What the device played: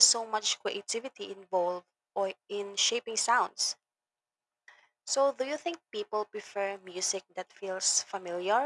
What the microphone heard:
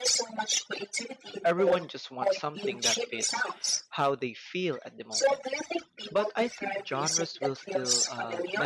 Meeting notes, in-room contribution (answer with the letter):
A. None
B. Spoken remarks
B